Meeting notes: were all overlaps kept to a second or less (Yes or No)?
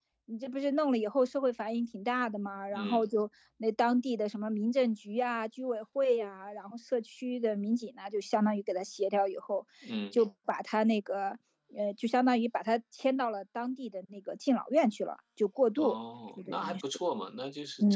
Yes